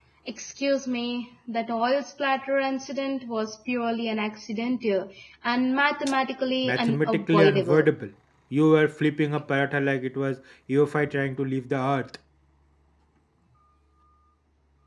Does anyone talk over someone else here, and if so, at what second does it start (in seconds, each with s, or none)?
6.6 s